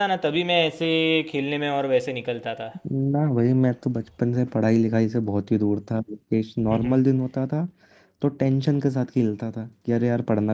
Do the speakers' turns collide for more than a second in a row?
No

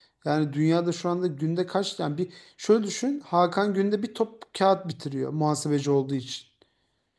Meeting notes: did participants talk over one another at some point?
No

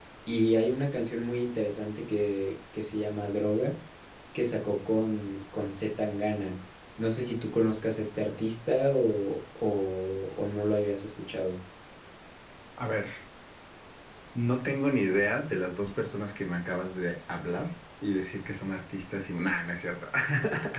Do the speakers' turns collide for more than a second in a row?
No

